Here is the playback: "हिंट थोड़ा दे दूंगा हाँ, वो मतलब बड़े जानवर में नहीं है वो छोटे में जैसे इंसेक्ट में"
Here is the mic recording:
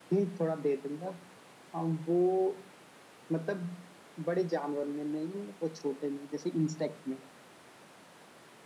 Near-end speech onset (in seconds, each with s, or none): none